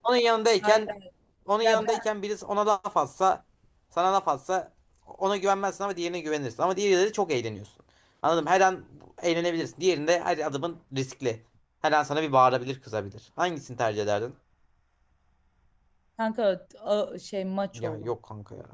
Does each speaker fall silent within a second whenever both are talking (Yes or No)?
Yes